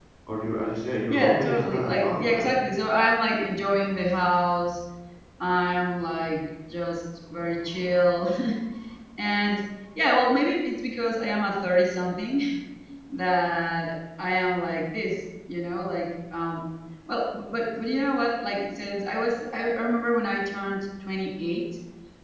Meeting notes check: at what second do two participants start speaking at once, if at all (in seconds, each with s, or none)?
1.1 s